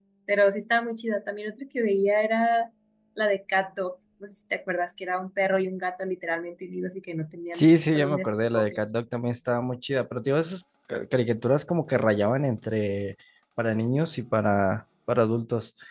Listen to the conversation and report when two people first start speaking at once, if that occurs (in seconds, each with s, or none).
7.5 s